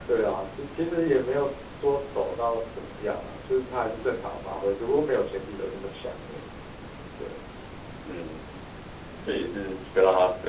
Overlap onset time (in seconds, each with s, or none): none